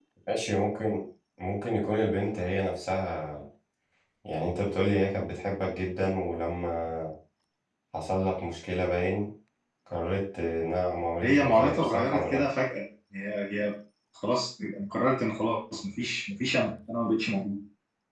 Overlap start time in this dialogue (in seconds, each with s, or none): 11.2 s